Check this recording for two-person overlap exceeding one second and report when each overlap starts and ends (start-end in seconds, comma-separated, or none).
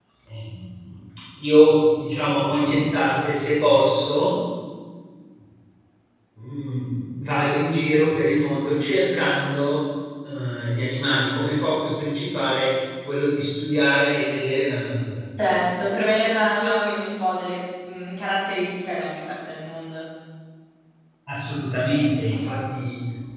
none